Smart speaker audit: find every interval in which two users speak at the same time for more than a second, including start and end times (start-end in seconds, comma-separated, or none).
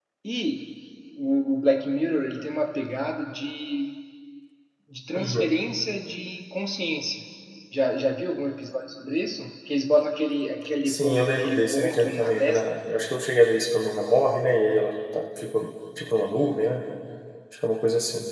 10.9-12.6